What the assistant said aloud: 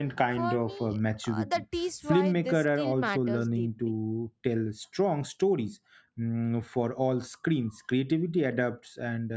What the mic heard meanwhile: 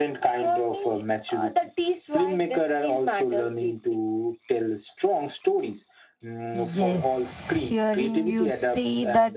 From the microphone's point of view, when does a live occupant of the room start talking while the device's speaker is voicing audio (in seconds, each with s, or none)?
6.5 s